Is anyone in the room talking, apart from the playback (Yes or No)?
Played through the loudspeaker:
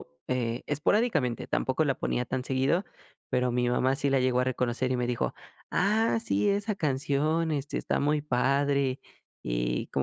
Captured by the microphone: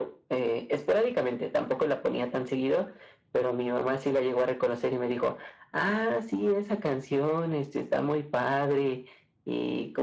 No